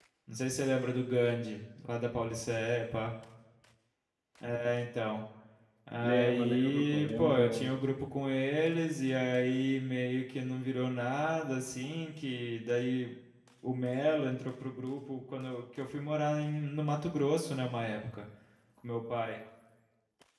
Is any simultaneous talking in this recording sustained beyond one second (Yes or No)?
Yes